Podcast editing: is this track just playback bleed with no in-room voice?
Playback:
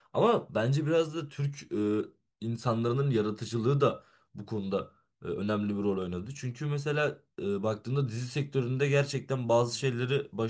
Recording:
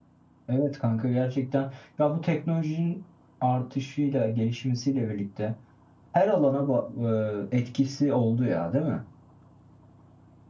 No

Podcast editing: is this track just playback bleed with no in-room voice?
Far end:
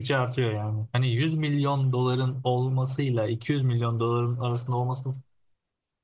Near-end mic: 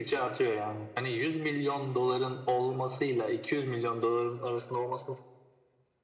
Yes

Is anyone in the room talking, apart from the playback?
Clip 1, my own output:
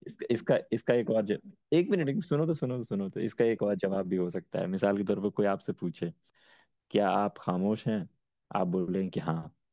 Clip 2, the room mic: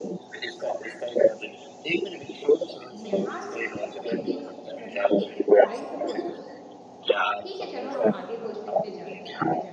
Yes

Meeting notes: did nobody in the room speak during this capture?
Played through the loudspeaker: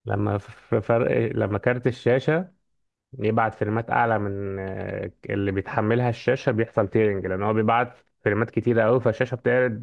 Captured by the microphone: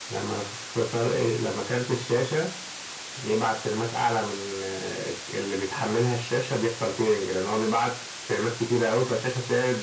Yes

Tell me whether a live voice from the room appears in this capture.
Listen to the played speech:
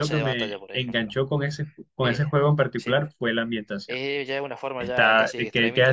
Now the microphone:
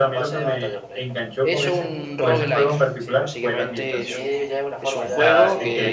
Yes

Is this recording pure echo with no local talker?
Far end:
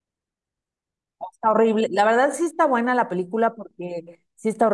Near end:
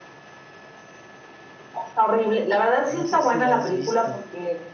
No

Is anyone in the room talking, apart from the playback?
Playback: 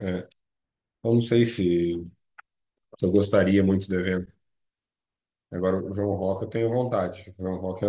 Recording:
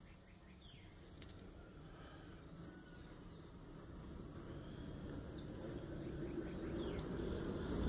No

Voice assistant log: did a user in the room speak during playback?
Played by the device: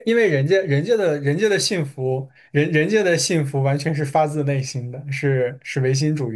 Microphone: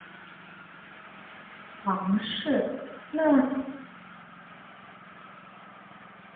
Yes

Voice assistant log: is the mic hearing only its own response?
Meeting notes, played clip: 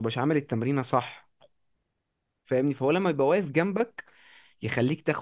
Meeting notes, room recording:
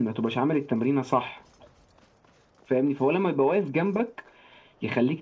Yes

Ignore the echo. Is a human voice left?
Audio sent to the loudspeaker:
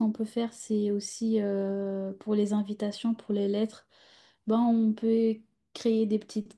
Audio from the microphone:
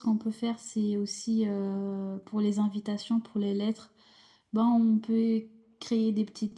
No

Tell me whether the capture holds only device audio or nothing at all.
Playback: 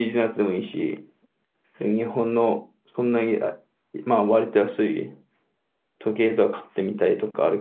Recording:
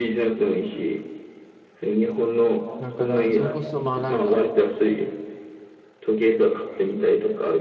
No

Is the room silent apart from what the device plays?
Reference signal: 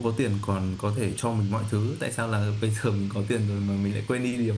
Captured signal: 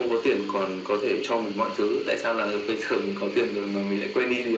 Yes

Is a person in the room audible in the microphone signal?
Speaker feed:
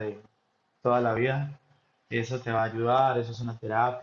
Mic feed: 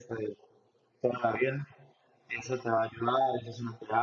No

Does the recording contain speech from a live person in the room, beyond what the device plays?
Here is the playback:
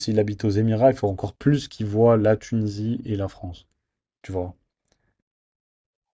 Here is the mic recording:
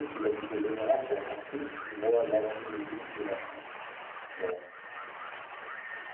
No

